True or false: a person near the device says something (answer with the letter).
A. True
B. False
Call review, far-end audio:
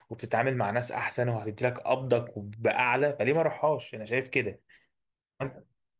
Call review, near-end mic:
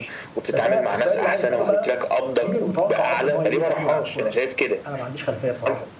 A